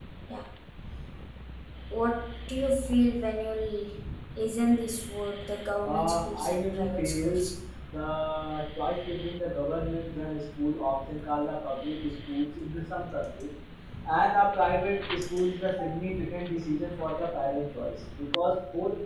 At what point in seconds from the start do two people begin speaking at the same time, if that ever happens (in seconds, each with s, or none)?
5.8 s